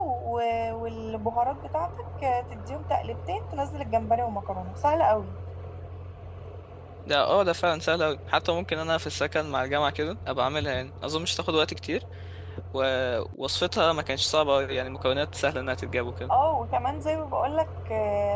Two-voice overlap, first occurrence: none

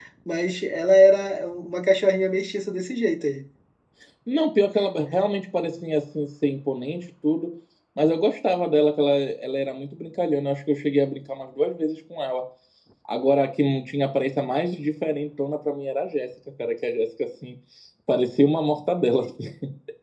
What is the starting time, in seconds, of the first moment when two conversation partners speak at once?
none

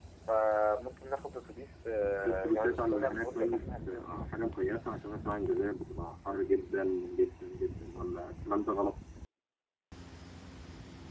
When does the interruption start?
2.2 s

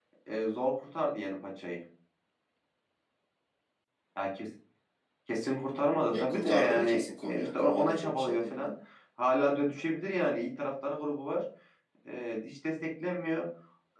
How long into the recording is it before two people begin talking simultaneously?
6.1 s

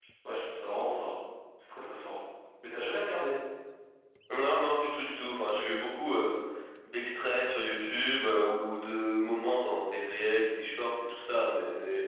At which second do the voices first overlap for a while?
none

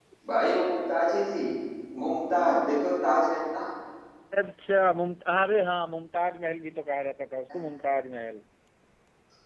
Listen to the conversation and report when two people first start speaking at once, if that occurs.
none

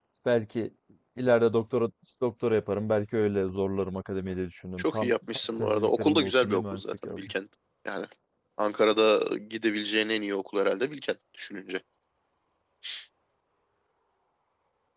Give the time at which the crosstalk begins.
4.8 s

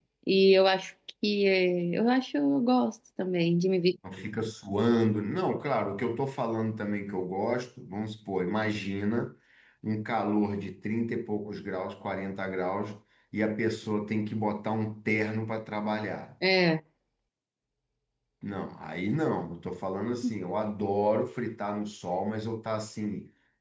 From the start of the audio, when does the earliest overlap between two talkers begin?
none

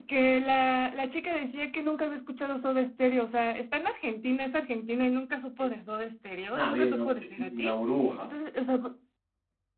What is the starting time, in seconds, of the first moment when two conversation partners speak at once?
6.5 s

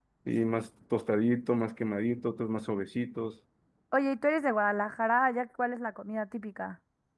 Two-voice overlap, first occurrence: none

